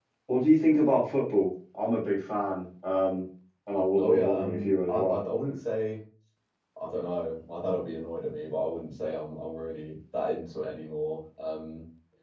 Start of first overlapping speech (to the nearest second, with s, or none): 4 s